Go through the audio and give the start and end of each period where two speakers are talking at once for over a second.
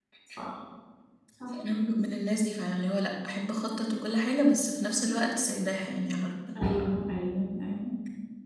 none

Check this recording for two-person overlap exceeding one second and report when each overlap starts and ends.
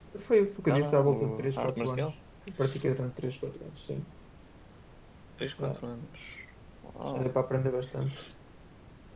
0.7-2.1

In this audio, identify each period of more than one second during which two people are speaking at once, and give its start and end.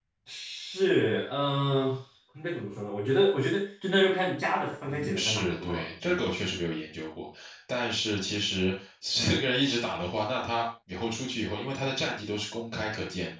4.8-6.3

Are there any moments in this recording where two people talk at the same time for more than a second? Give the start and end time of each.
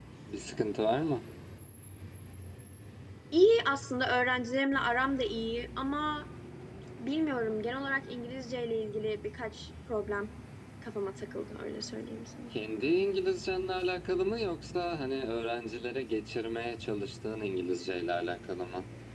none

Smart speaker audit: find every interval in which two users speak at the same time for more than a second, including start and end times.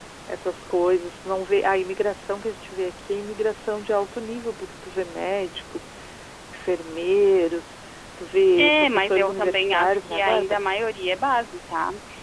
8.6-10.6

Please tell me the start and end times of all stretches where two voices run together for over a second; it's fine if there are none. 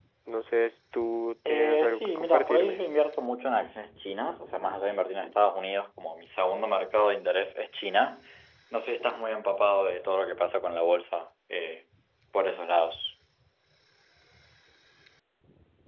1.5-2.8

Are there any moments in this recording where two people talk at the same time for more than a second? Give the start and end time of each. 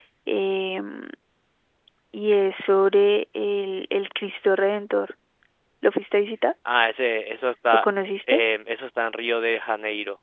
none

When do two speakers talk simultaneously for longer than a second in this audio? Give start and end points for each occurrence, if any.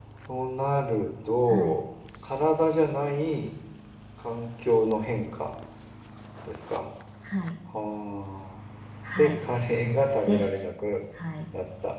none

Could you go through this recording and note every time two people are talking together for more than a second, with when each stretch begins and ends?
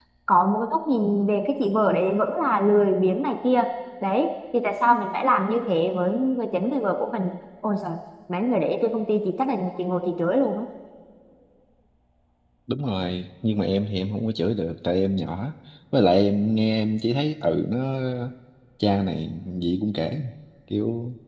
none

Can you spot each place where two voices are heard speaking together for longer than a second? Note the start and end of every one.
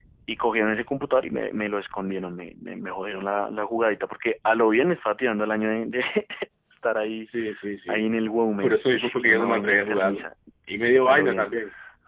8.6-10.2

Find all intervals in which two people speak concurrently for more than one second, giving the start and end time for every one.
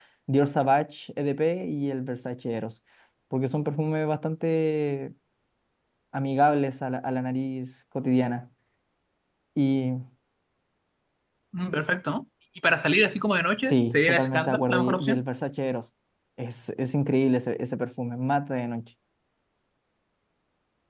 13.7-15.2

